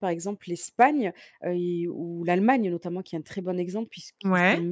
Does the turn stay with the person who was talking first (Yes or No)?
Yes